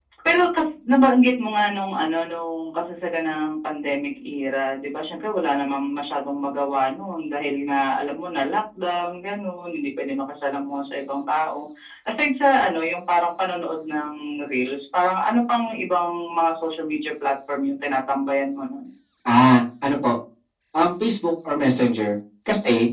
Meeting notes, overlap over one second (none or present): none